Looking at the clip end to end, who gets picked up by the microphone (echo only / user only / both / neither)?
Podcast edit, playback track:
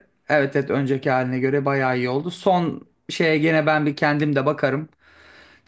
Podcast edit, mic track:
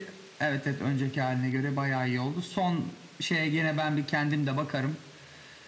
echo only